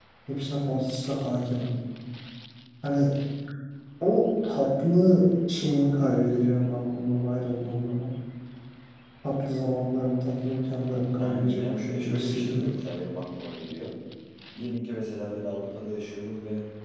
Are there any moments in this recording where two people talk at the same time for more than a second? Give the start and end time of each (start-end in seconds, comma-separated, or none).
11.2-12.6